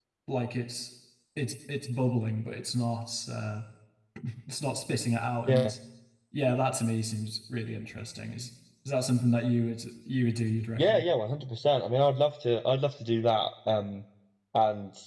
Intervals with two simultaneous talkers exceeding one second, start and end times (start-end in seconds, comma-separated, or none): none